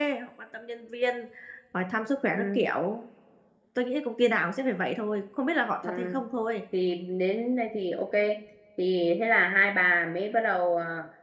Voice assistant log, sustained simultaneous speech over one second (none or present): none